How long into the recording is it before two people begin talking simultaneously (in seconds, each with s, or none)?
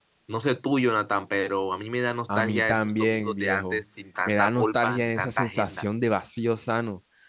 2.4 s